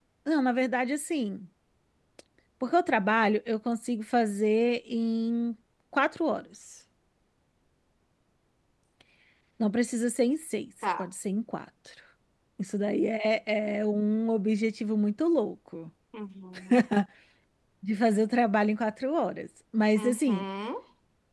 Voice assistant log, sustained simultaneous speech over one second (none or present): none